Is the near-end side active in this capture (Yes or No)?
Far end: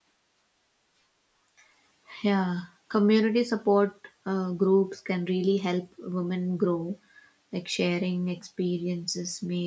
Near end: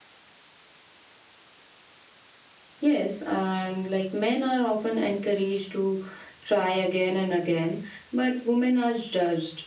Yes